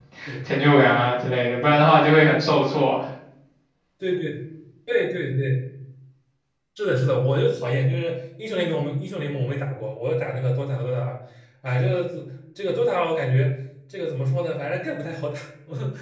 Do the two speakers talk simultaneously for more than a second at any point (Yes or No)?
No